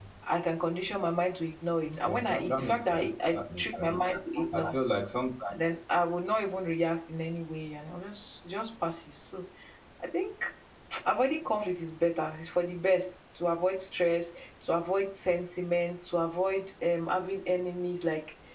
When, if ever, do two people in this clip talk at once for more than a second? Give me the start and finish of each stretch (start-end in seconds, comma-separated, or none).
1.9-3.9